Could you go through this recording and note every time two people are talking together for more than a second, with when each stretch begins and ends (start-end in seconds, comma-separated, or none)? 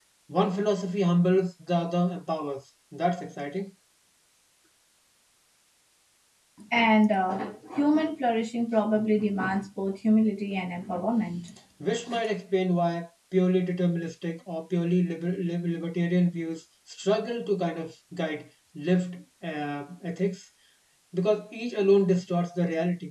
none